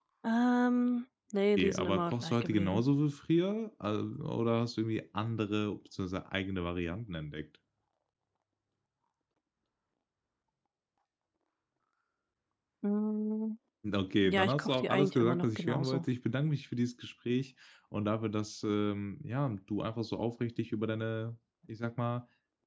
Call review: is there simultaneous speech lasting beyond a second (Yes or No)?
Yes